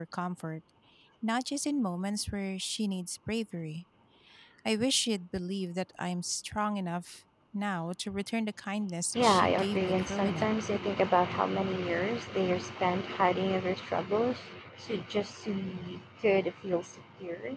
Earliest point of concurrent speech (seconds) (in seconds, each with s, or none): 9.2 s